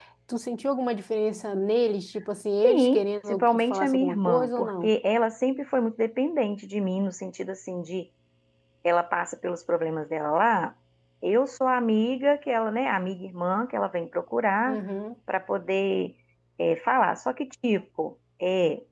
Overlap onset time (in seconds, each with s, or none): 2.6 s